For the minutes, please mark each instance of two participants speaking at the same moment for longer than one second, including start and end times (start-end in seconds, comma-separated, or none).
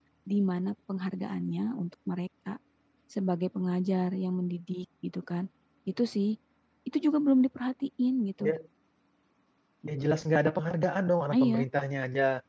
none